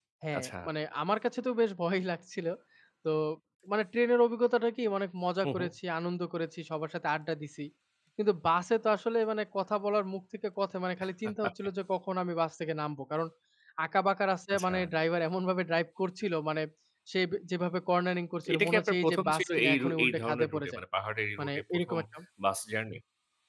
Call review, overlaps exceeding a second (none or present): present